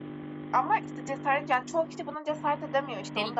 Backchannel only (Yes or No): No